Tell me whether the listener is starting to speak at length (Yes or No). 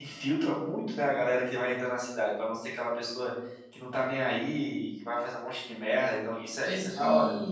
Yes